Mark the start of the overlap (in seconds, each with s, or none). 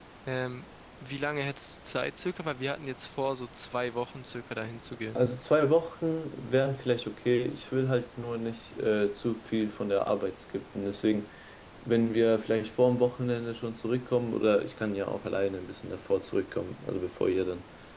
none